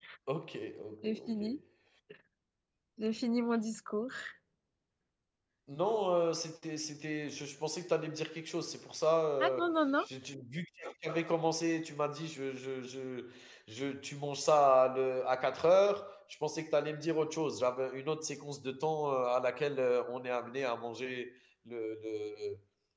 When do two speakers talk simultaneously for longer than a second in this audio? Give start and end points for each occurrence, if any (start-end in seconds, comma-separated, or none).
none